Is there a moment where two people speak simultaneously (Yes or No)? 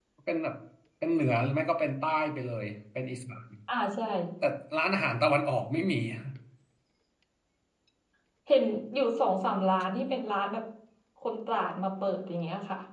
No